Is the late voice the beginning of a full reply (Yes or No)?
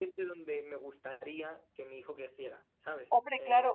Yes